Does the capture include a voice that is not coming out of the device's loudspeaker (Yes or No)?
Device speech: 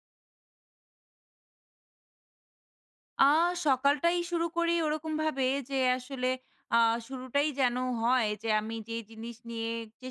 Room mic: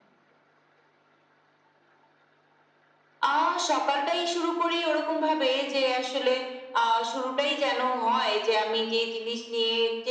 No